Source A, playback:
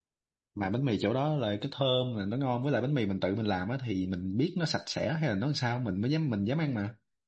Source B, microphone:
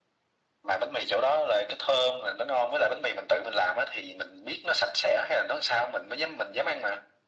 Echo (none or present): present